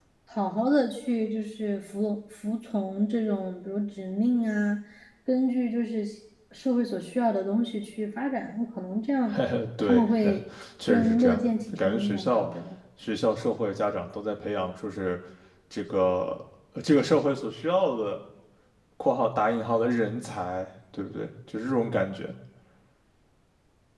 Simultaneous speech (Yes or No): Yes